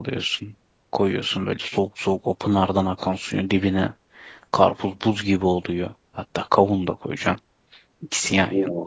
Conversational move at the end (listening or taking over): listening